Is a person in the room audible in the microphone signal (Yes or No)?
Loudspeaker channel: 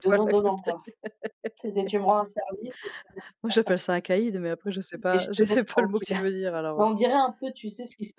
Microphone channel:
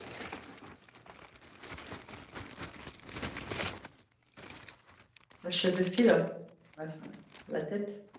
Yes